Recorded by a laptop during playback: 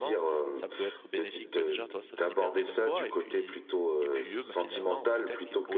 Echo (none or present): present